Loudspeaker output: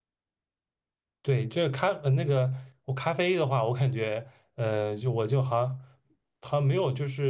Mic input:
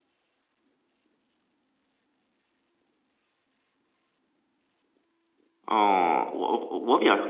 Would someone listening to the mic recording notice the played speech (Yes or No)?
No